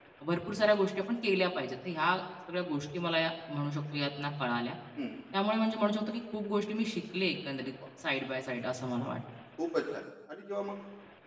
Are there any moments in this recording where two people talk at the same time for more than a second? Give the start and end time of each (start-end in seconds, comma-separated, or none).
none